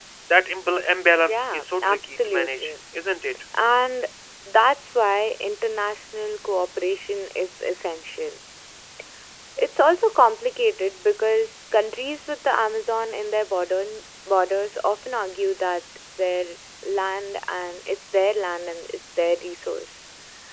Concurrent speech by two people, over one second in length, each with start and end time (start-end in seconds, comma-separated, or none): 1.3-2.7